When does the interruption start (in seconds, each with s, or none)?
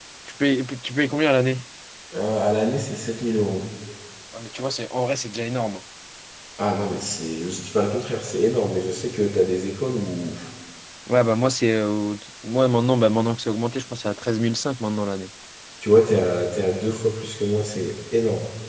none